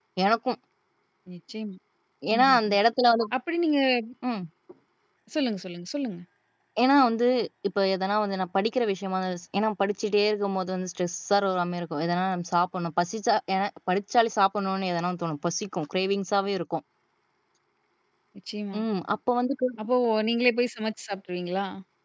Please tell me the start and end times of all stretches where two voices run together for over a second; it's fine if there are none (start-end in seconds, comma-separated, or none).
none